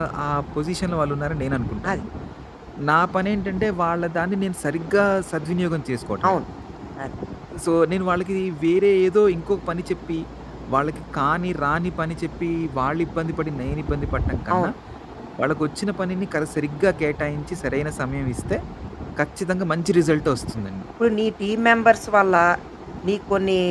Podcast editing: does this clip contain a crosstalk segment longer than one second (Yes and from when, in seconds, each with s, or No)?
No